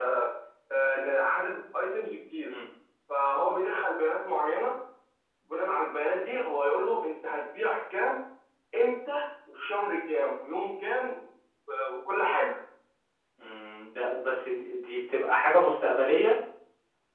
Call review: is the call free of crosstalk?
Yes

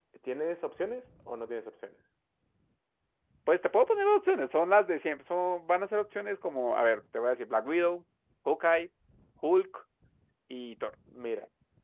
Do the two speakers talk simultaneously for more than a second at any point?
No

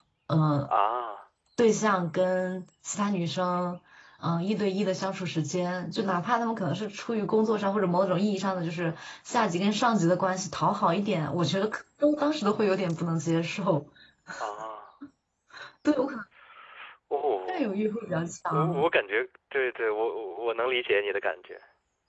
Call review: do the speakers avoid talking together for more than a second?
Yes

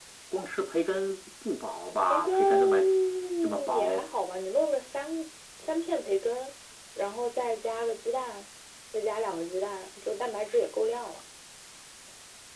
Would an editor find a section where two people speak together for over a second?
Yes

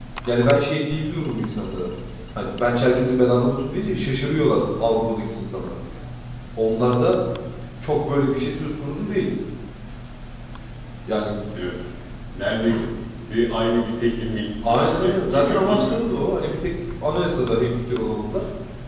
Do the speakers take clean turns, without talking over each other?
No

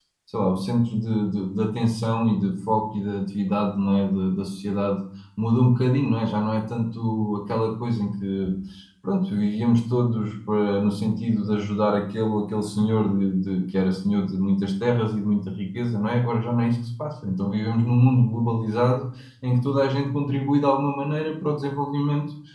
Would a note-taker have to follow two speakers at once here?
No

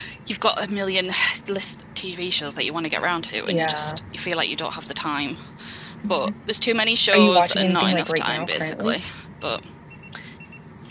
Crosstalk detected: Yes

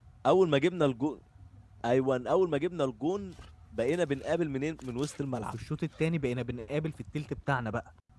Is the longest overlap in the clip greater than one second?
No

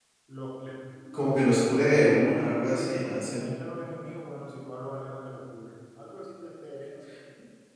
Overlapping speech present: Yes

